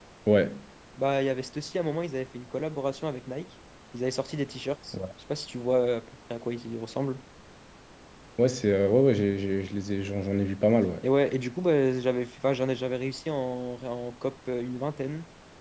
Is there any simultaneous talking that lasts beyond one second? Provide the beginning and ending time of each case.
none

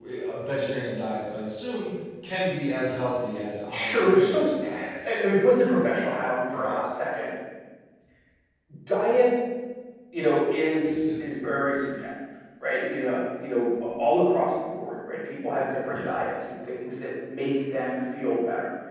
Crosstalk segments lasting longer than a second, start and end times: 3.7-5.2

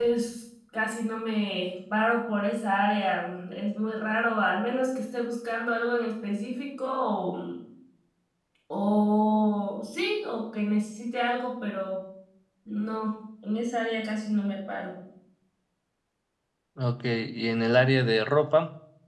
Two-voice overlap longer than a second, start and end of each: none

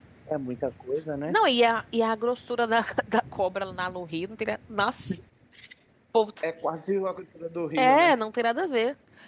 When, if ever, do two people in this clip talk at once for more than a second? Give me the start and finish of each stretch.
none

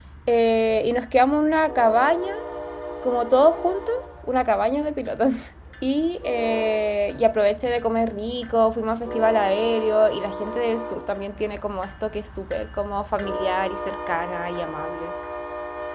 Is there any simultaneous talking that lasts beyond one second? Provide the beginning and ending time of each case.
none

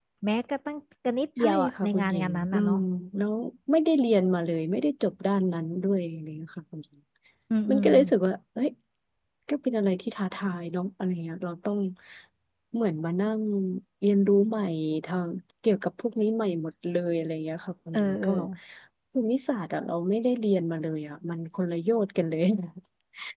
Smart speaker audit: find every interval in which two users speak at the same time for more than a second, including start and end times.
1.4-2.8

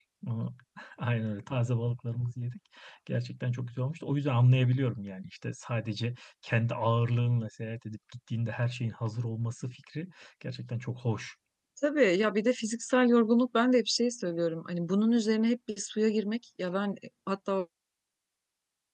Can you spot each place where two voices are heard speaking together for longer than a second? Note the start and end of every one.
none

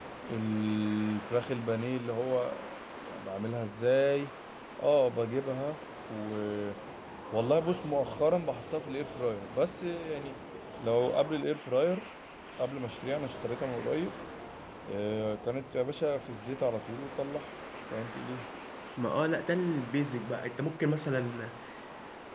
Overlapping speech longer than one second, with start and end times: none

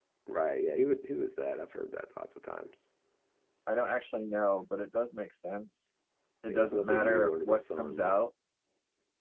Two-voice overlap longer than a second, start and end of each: 6.5-8.2

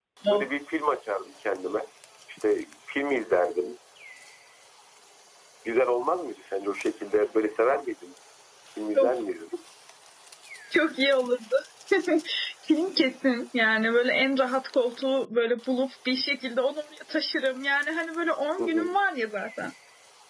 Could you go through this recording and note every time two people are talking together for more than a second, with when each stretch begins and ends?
none

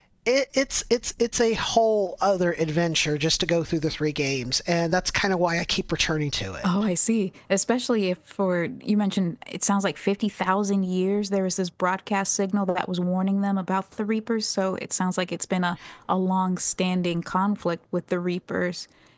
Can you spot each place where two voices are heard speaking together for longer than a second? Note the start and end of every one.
none

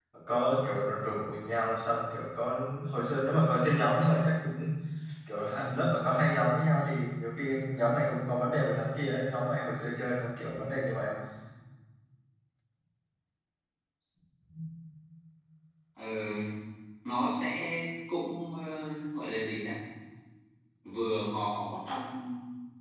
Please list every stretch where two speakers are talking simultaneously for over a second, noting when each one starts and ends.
none

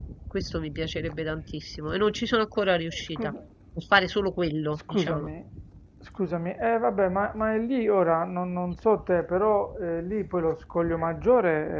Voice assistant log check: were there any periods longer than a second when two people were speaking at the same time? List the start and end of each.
none

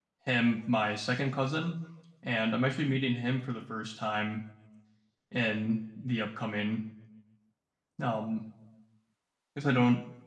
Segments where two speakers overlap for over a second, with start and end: none

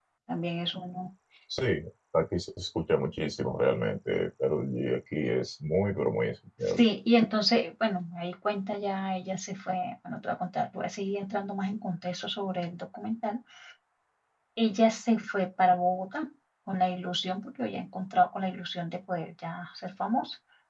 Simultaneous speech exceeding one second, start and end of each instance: none

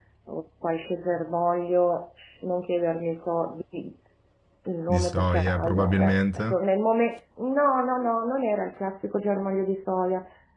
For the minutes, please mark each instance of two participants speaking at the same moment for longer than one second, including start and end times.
4.9-6.6

